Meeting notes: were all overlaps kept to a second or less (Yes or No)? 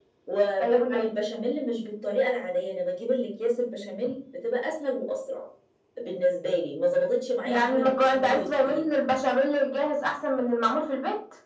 No